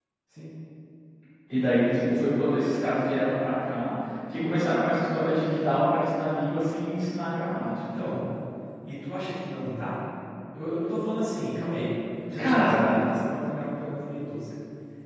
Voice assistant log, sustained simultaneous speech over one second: none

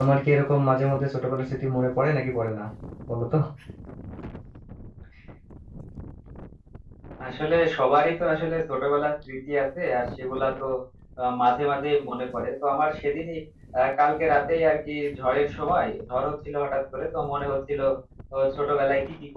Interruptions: none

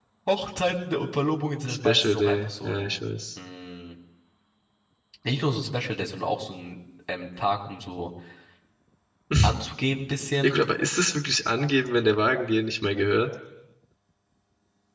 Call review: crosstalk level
present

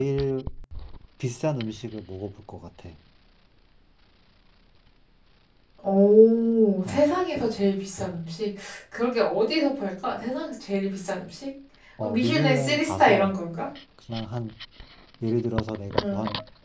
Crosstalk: present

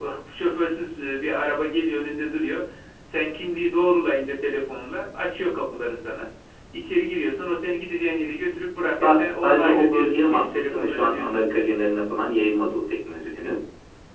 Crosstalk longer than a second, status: present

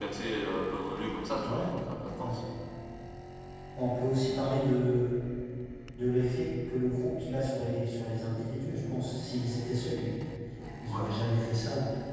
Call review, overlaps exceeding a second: none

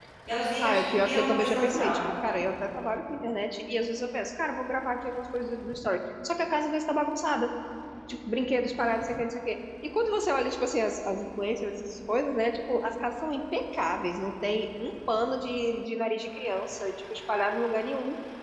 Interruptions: present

